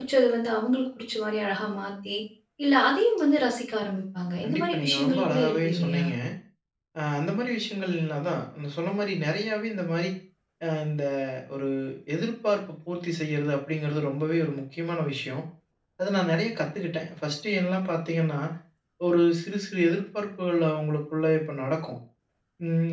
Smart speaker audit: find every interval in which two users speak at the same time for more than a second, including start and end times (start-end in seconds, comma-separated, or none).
4.4-6.0